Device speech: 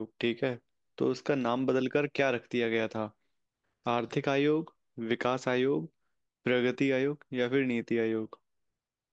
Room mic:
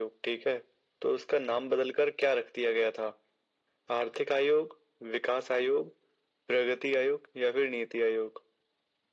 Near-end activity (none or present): none